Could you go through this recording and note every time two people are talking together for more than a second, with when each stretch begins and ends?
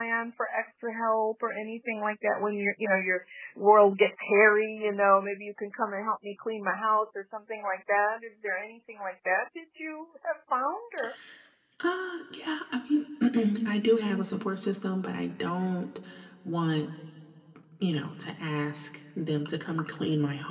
none

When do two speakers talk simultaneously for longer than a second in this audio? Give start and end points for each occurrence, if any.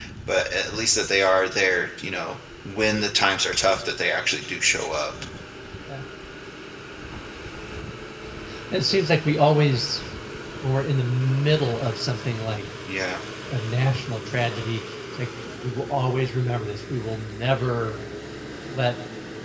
none

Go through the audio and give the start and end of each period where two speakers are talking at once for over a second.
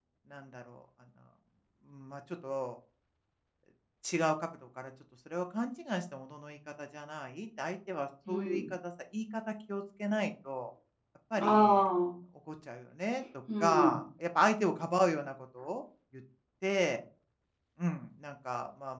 none

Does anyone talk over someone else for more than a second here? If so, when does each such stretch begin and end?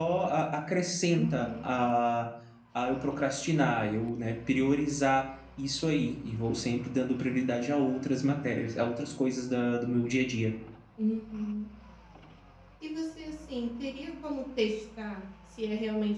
none

